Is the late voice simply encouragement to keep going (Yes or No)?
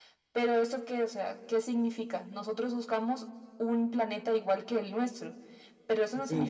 Yes